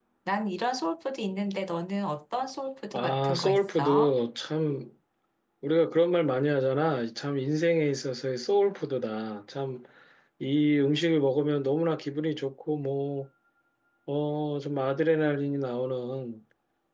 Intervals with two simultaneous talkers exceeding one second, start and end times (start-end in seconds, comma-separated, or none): 2.9-4.1